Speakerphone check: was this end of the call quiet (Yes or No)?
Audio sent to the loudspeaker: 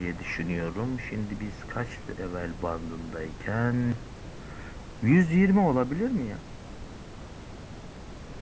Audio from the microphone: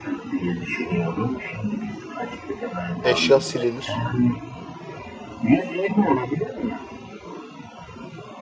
No